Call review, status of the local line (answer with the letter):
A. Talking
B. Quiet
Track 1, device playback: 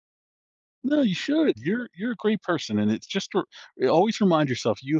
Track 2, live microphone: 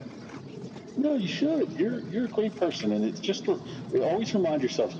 B